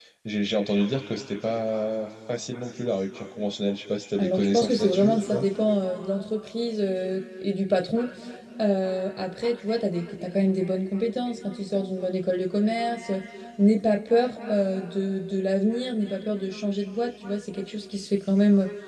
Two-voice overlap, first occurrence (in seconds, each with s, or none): 4.2 s